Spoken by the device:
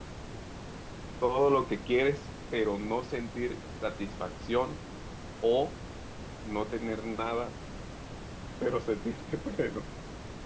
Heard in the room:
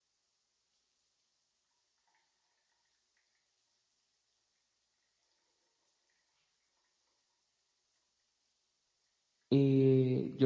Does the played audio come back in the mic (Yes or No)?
No